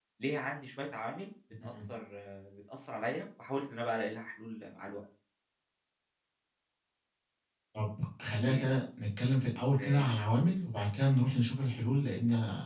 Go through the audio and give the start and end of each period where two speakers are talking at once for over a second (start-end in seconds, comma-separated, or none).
none